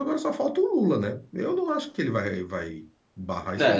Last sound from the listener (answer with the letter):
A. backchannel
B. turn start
B